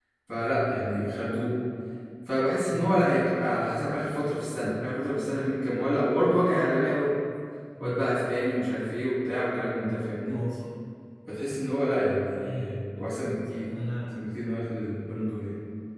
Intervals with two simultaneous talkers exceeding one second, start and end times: none

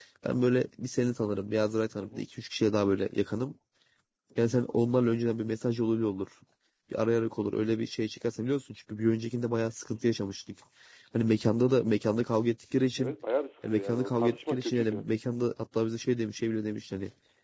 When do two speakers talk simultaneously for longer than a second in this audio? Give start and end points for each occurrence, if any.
13.6-15.0

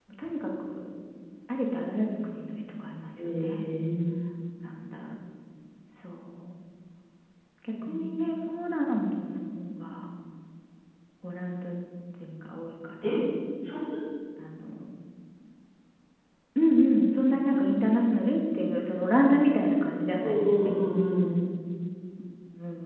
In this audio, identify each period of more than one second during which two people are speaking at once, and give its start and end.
none

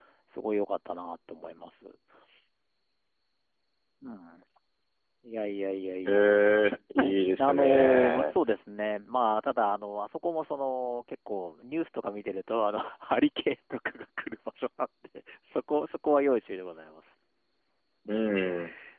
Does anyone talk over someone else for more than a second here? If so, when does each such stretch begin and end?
7.0-8.3

